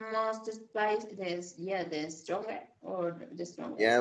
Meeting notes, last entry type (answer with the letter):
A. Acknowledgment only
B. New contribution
B